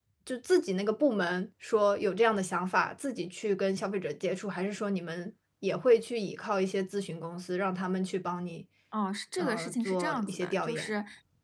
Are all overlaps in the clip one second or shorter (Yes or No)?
No